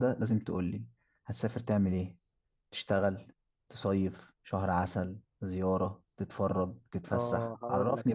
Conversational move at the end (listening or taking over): taking over